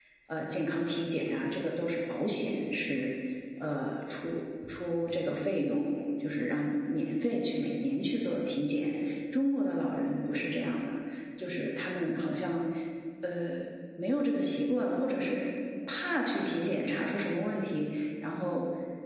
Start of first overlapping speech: none

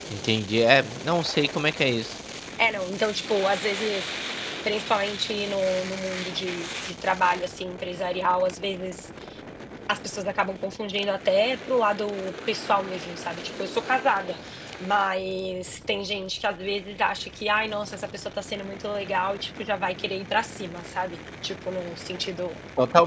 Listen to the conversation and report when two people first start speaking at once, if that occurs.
none

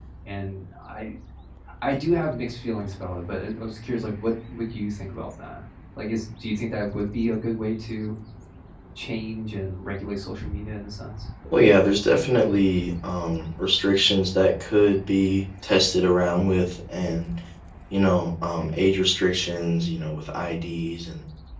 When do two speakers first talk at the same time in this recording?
none

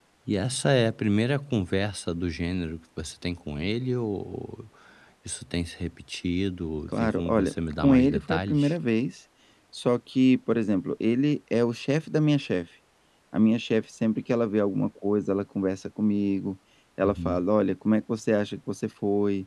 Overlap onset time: 6.9 s

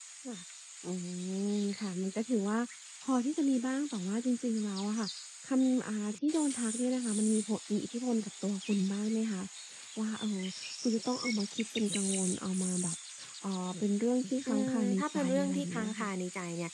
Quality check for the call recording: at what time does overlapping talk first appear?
14.5 s

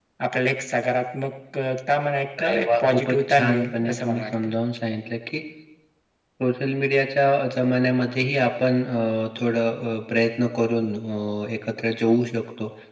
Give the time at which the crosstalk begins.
2.4 s

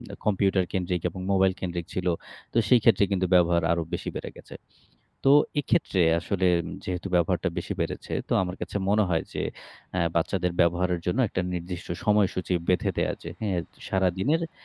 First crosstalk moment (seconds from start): none

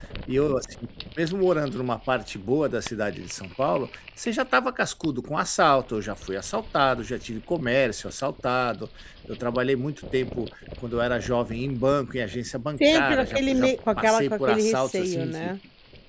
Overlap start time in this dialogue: 12.8 s

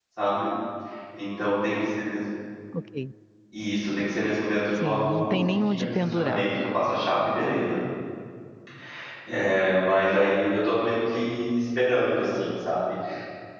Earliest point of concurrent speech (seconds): 4.7 s

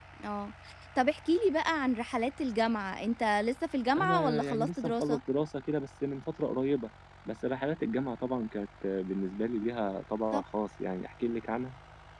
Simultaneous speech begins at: 4.0 s

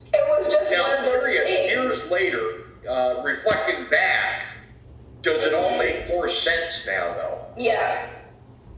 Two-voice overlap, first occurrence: 0.7 s

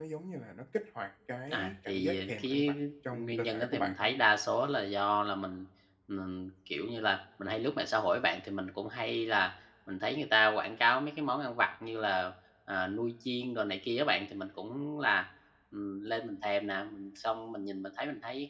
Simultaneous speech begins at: 1.5 s

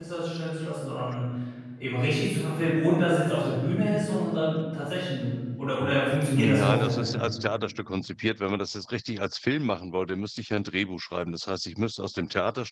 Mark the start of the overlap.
5.8 s

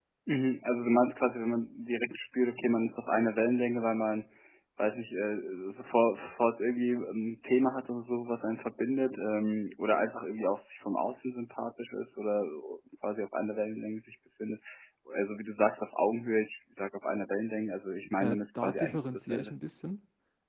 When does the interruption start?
18.2 s

